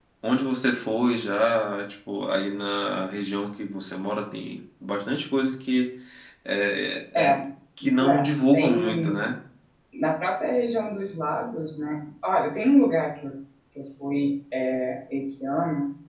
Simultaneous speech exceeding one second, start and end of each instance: 7.8-9.2

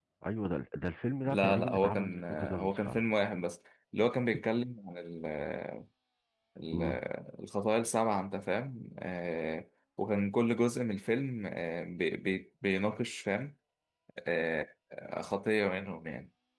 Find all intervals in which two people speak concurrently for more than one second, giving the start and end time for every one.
1.3-3.0

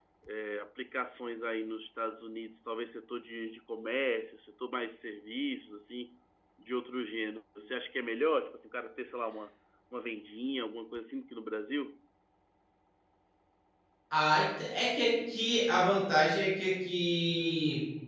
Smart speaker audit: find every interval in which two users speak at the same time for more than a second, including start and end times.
none

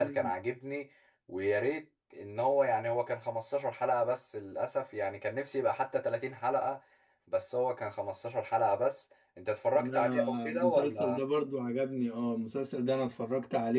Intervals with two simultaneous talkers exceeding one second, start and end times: 9.8-11.2

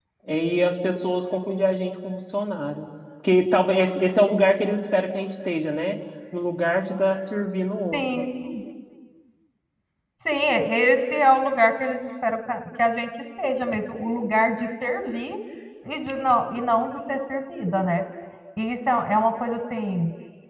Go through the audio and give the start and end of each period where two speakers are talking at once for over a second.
none

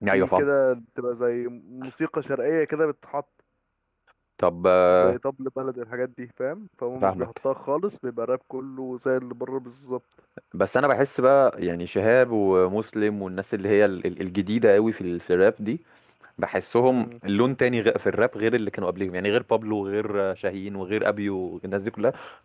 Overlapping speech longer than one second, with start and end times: none

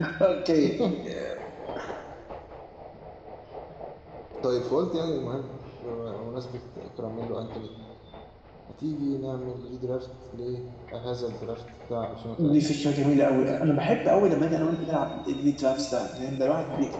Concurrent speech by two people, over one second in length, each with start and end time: none

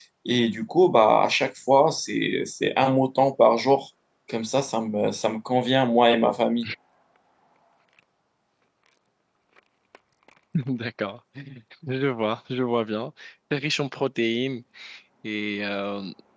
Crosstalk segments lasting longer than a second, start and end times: none

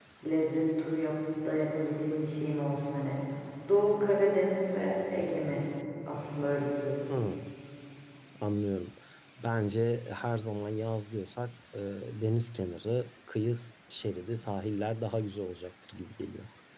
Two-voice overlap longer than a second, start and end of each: none

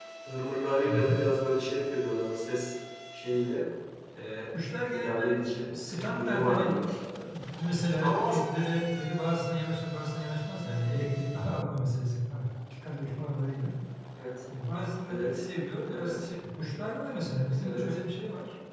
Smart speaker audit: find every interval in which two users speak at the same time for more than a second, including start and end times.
4.9-6.8

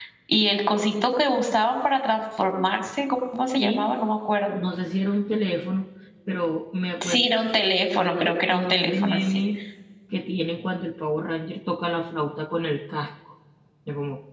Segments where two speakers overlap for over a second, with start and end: 8.2-9.4

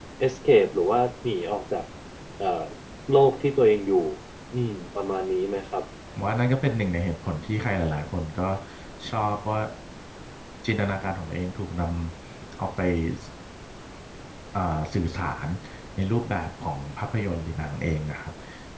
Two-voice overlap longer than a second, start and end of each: none

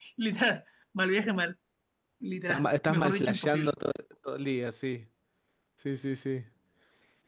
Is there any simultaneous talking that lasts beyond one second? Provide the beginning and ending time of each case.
2.5-3.7

